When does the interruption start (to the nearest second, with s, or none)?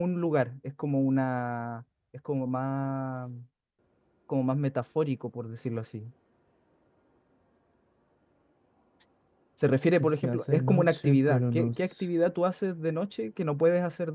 10 s